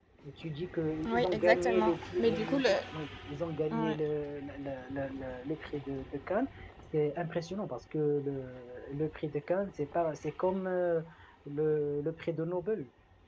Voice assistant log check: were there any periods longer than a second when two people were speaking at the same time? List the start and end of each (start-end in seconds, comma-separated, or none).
1.1-2.6